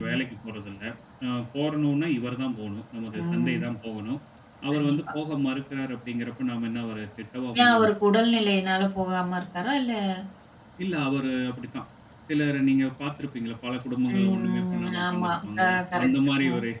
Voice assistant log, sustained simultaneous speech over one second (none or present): present